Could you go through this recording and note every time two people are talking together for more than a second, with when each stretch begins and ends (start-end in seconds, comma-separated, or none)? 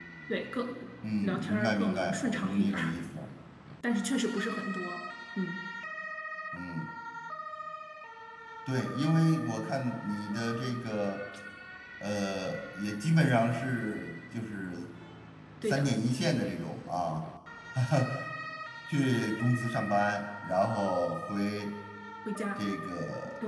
1.4-2.9